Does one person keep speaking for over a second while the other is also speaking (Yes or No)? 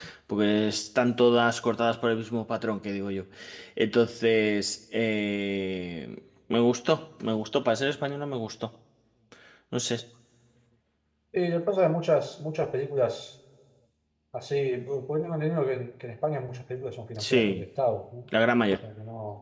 No